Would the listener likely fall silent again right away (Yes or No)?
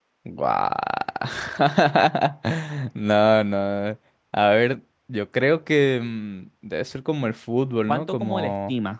No